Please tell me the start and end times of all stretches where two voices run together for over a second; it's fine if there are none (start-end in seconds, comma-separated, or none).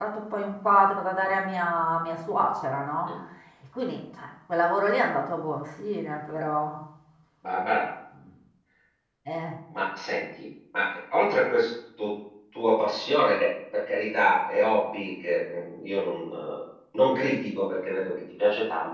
none